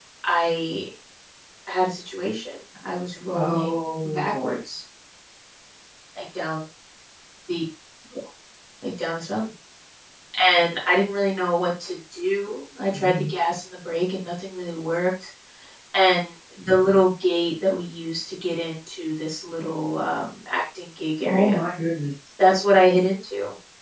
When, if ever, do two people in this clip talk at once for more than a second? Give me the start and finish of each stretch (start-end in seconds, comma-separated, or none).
3.3-4.6